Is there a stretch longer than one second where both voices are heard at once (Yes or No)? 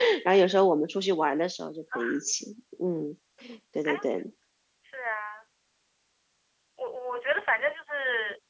No